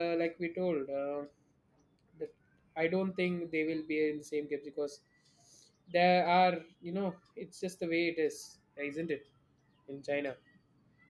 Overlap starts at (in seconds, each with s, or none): none